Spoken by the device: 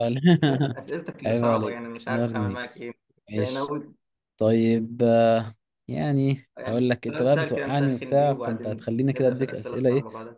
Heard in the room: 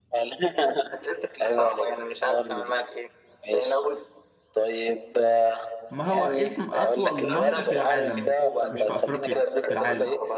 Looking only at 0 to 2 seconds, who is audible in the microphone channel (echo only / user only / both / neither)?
echo only